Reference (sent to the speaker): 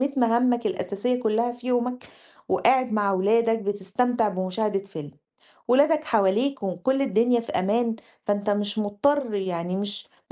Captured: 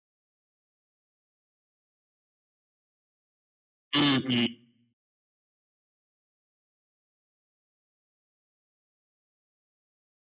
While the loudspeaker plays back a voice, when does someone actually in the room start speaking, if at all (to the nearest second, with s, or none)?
4 s